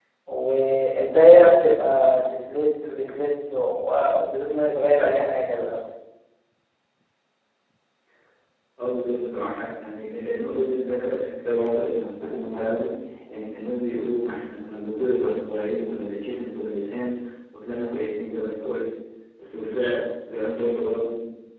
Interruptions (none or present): none